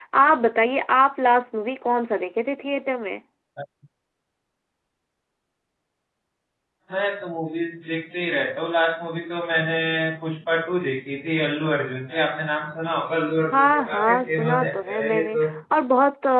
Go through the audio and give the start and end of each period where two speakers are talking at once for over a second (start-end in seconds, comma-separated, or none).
13.5-15.5